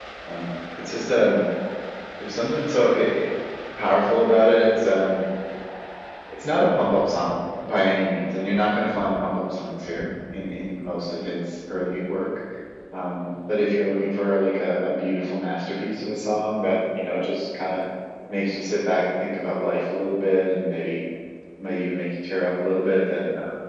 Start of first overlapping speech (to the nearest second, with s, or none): none